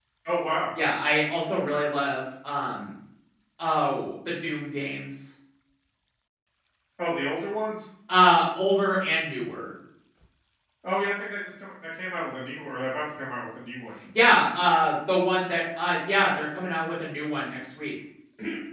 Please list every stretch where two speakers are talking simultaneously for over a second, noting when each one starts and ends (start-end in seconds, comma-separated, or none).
none